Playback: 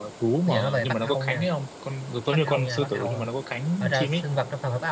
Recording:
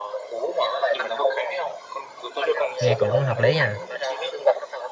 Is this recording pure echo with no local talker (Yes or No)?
No